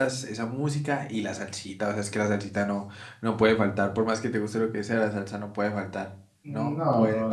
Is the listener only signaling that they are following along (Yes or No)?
No